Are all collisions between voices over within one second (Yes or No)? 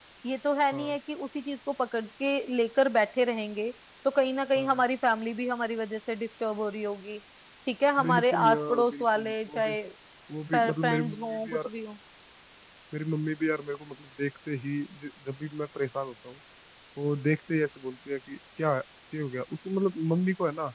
No